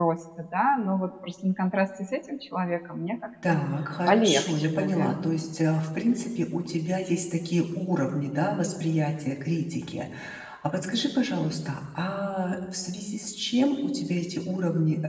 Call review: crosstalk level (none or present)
present